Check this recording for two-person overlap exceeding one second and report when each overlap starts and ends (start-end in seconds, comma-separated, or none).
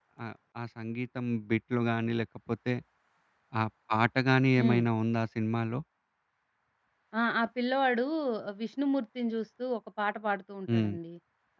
none